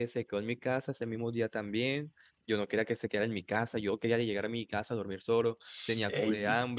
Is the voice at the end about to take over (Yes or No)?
Yes